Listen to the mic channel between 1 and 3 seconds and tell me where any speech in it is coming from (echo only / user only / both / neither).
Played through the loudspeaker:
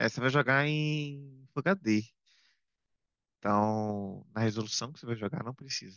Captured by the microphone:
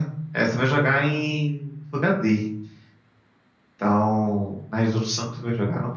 echo only